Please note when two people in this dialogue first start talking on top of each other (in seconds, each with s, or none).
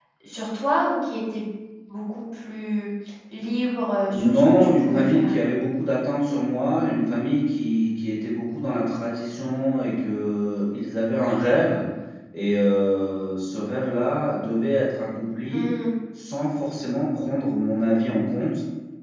4.1 s